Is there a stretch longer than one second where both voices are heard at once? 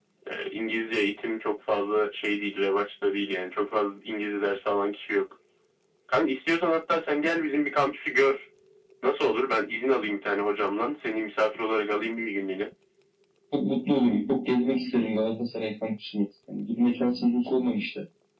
No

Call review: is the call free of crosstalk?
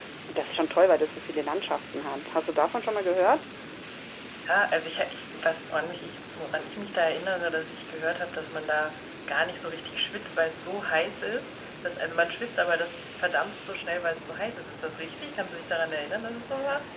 Yes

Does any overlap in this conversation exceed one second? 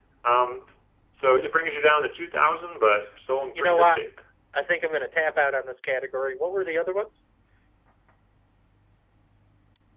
No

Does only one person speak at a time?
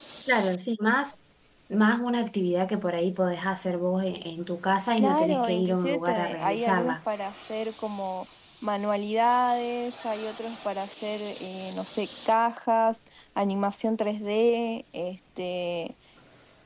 No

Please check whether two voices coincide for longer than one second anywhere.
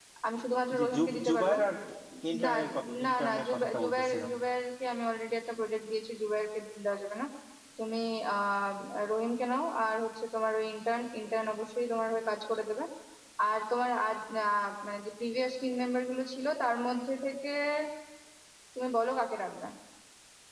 Yes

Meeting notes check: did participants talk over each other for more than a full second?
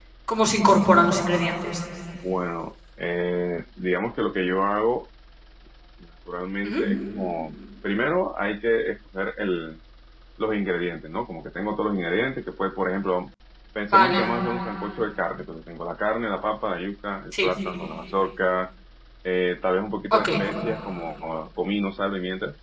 No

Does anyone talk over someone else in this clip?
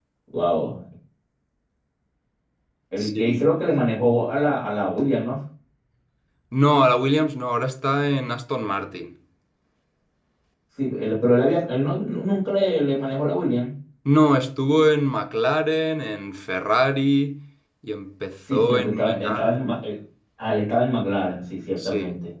Yes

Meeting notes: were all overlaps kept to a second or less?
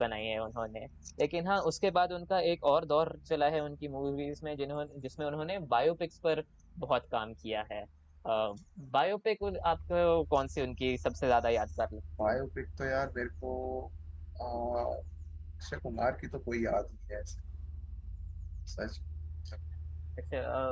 Yes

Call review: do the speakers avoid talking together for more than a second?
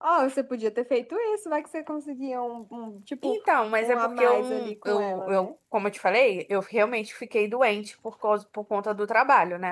No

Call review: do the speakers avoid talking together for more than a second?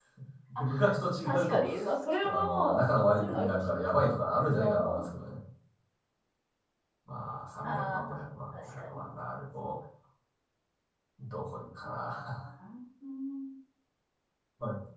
No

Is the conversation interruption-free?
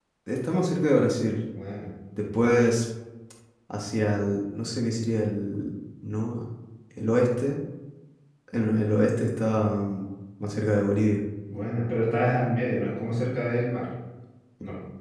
Yes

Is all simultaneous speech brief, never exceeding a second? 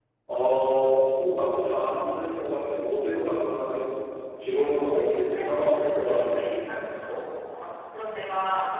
No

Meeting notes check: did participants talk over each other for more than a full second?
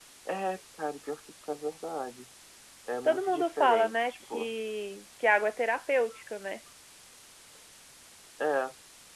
Yes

